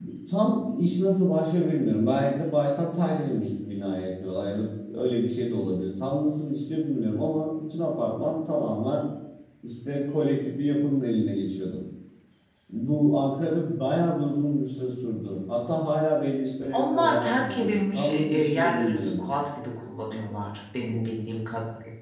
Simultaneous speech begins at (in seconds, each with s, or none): 16.7 s